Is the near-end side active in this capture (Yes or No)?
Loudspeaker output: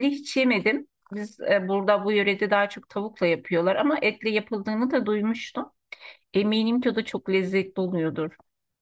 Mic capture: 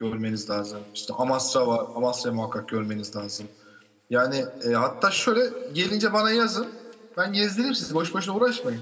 Yes